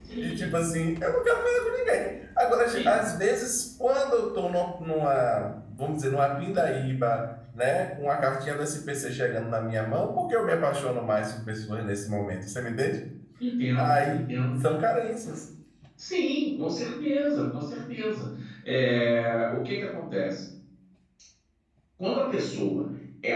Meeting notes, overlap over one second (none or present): none